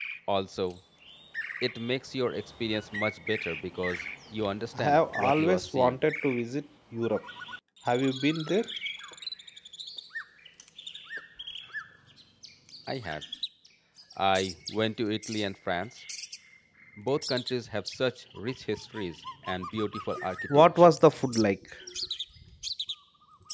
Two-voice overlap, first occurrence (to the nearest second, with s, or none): 5 s